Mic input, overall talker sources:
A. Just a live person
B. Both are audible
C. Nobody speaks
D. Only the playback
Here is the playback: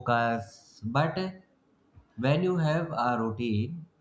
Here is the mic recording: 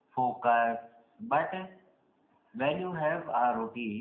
D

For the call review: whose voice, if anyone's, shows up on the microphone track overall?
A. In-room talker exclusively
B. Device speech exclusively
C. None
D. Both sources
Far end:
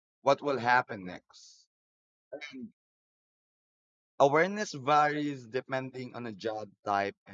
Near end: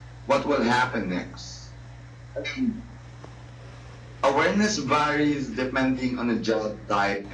B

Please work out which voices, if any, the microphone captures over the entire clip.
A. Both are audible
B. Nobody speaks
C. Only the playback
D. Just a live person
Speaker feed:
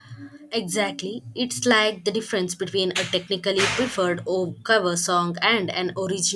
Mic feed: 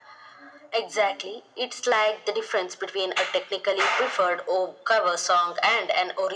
C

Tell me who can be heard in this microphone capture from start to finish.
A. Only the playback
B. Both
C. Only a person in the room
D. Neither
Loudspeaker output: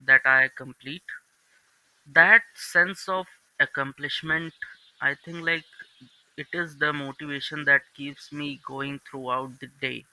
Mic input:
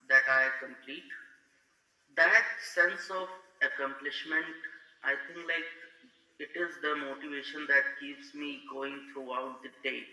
A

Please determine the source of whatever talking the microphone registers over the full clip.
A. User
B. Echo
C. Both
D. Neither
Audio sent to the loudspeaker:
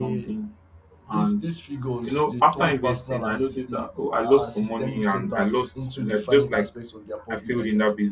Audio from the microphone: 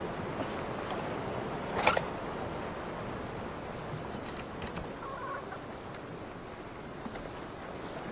D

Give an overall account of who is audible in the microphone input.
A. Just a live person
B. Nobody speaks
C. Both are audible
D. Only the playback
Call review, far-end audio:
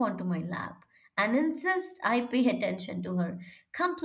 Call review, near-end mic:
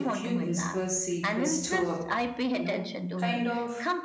C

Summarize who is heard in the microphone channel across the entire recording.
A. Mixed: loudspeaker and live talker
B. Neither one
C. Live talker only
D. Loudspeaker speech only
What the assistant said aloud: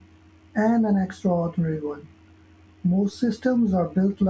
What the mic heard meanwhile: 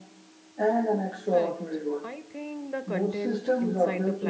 A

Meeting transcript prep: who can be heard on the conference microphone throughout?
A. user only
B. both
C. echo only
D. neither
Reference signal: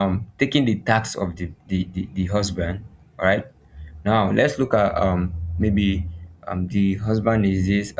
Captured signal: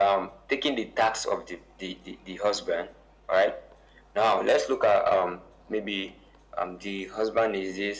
C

